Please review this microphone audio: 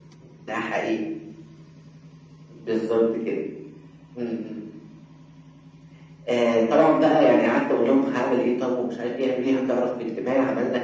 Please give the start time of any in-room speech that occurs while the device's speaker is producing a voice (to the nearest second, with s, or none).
none